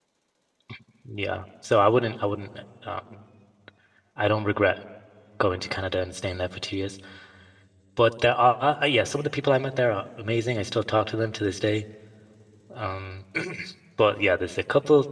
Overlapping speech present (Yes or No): No